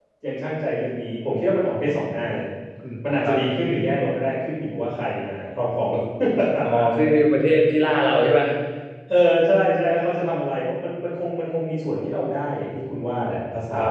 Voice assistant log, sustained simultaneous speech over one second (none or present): none